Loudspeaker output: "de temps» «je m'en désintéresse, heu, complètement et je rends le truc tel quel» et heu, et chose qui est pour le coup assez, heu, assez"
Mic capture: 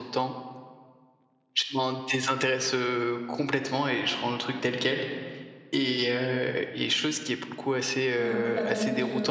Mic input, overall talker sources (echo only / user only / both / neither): both